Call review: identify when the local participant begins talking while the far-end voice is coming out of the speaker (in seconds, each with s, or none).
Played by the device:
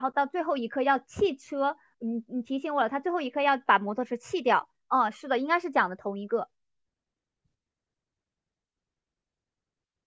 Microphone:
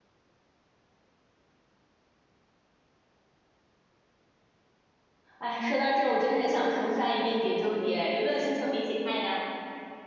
5.4 s